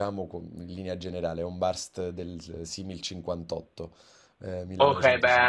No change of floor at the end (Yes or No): No